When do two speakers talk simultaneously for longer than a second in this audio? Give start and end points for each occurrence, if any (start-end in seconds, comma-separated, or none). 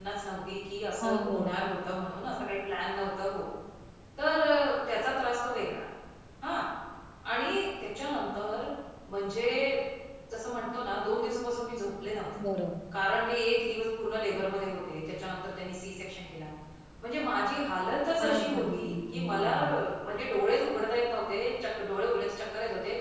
18.2-19.5